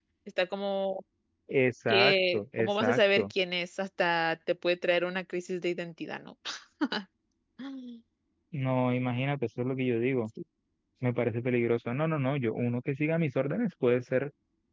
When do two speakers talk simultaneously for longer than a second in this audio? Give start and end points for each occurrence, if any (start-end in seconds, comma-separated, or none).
1.9-3.3